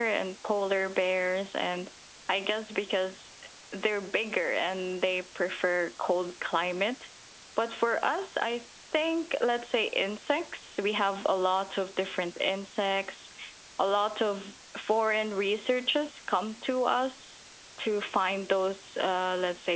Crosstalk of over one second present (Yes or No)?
No